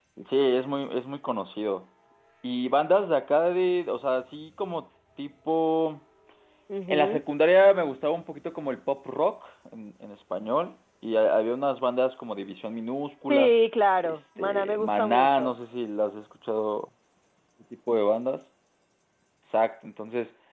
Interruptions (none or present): present